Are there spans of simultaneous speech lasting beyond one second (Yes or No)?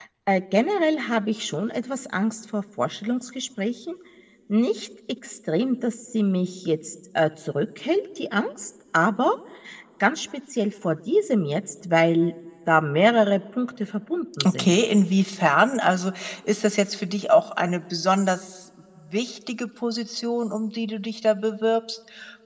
No